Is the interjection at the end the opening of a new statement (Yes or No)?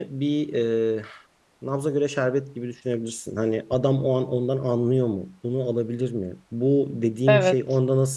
No